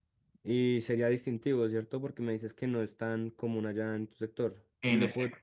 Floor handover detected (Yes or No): No